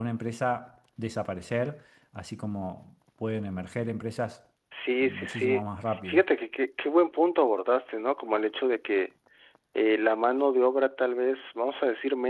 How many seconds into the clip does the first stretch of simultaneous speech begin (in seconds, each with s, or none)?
5.0 s